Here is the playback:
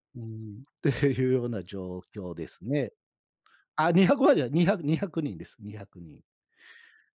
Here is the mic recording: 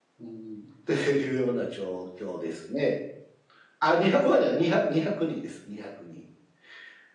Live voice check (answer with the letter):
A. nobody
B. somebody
A